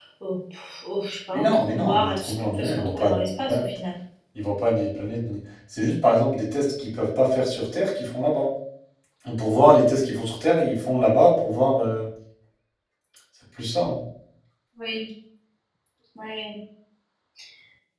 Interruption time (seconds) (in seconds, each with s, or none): 1.3 s